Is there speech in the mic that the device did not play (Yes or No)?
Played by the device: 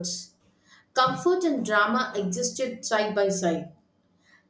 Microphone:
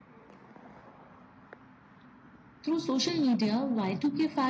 Yes